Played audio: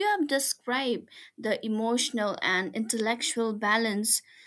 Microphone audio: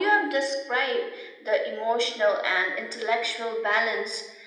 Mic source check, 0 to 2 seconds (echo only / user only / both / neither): echo only